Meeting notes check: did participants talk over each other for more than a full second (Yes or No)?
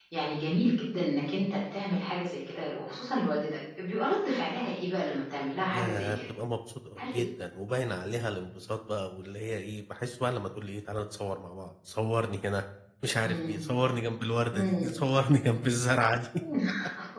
No